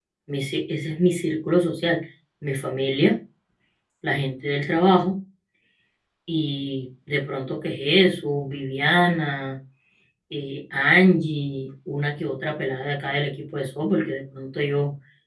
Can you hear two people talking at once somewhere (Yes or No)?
No